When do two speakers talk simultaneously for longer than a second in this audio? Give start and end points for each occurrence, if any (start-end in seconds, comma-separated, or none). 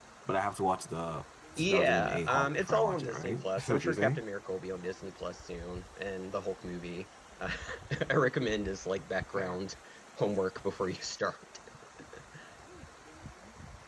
1.6-4.2